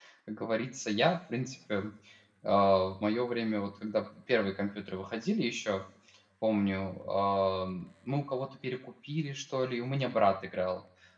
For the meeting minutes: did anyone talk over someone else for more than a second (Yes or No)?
No